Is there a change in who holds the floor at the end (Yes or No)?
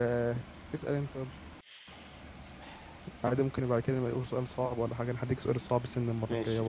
Yes